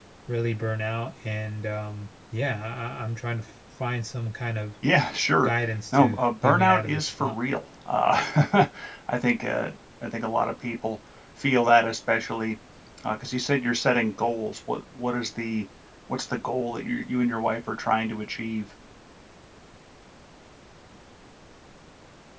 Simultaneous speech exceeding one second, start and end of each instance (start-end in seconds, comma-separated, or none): 5.9-7.3